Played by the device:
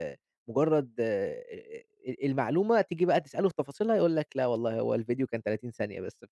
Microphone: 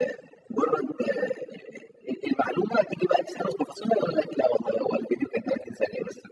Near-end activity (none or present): none